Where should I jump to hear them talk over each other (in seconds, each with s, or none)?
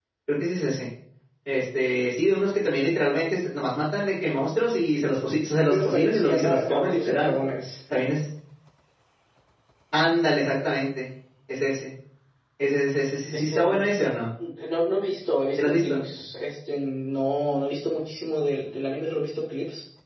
5.6 s